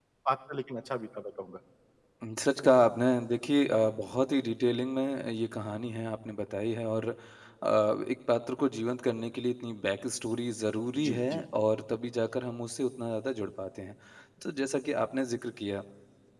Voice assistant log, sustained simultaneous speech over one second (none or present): none